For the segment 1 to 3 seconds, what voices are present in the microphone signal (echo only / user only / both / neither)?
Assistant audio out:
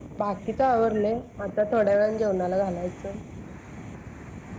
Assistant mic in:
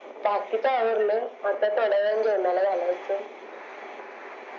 echo only